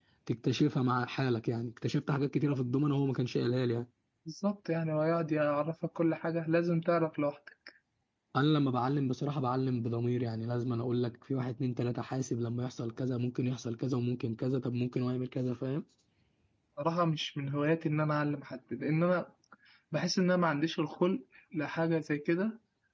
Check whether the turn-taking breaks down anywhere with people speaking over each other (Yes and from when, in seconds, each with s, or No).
No